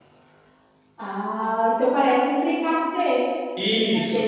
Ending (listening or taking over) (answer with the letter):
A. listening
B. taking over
B